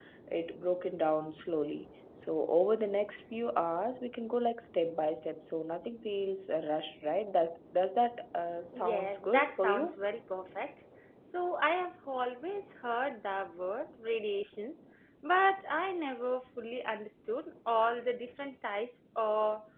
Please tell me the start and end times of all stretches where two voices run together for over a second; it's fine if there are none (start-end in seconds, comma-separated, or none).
8.7-9.9